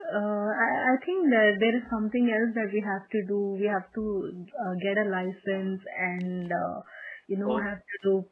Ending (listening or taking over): listening